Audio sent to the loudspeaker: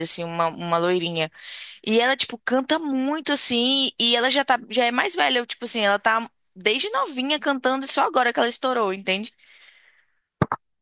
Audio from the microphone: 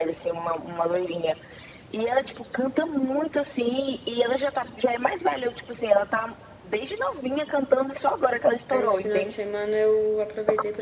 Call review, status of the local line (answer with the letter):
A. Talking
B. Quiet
A